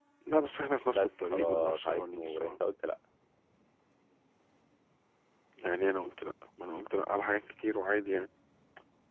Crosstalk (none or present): present